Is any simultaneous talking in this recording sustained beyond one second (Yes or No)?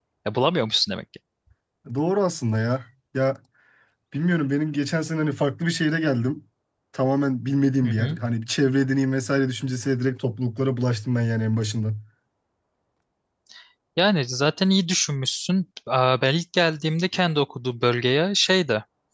No